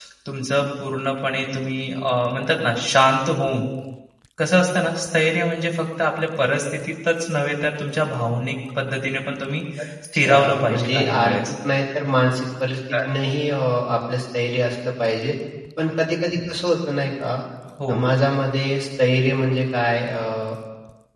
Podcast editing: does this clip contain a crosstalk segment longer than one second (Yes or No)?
Yes